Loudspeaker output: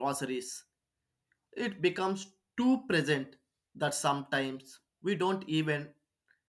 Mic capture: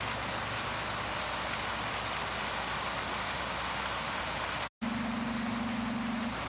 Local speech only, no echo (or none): none